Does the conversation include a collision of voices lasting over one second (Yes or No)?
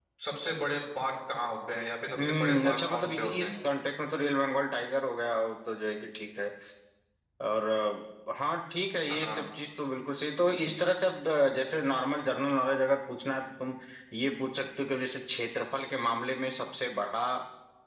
Yes